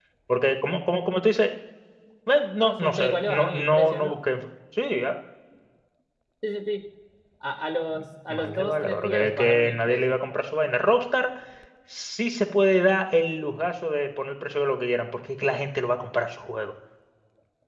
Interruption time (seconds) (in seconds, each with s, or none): 2.6 s